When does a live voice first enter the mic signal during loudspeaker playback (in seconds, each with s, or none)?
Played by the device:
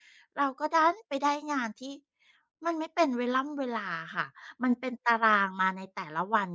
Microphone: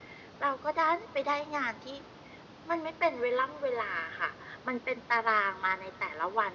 none